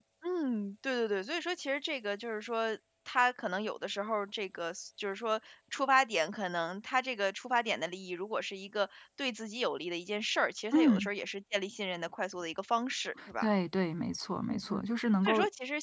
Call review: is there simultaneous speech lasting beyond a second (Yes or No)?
No